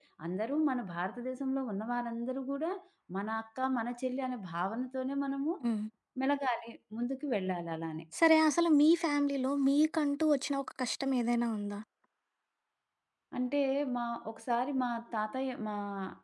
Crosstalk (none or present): none